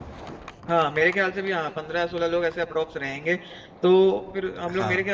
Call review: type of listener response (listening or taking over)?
listening